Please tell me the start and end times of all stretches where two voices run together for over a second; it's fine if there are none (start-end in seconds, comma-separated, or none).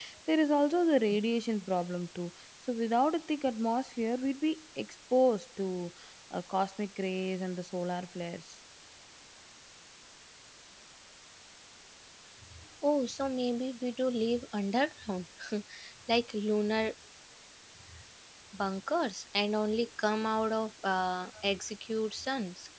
none